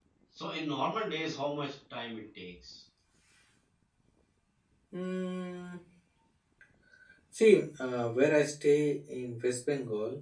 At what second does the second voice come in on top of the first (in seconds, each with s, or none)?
none